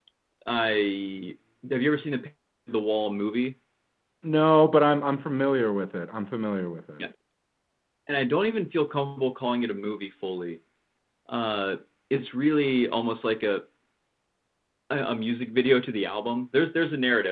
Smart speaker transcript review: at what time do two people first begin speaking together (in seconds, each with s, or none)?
none